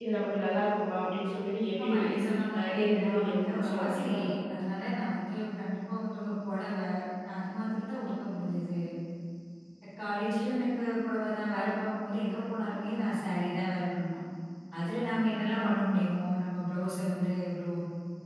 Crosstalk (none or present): present